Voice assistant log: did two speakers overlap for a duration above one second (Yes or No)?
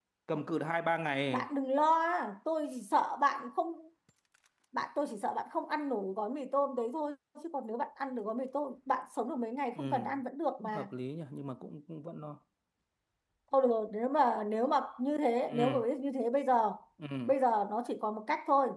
No